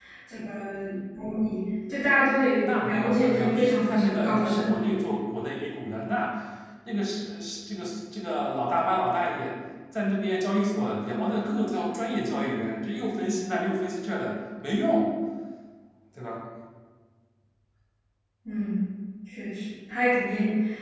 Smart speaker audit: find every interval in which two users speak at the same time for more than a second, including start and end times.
2.6-4.9

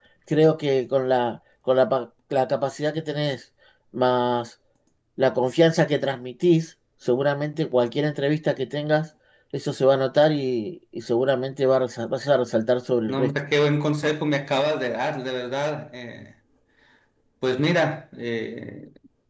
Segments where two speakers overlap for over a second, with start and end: none

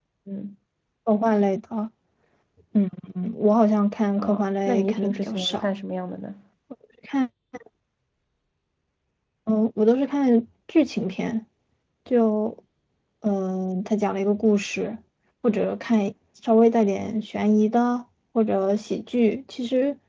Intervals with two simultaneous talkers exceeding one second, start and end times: 4.2-5.7

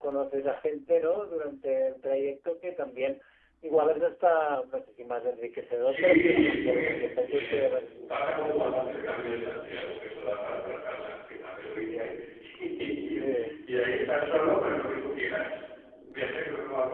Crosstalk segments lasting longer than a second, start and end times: 5.8-7.7

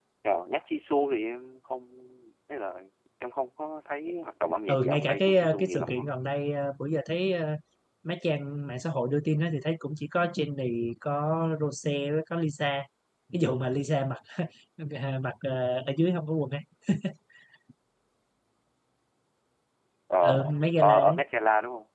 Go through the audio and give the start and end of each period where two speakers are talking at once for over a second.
4.7-6.0

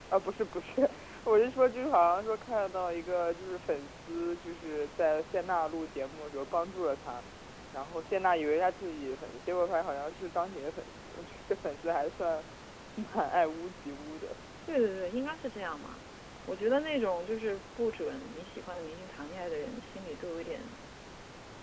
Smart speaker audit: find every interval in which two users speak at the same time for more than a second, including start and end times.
none

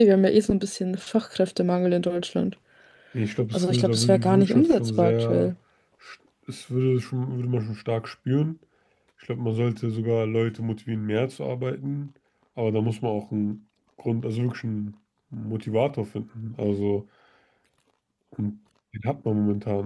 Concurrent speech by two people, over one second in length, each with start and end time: 3.5-5.5

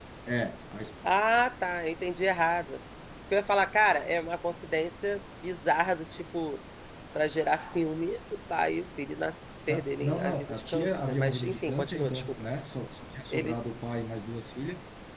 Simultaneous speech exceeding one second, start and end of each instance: 9.7-12.2

